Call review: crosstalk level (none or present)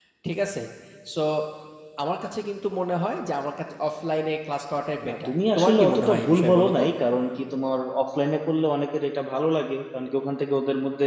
present